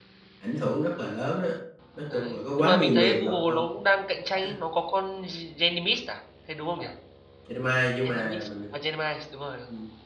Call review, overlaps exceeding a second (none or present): present